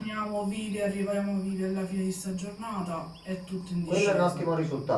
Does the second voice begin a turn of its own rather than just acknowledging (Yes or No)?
Yes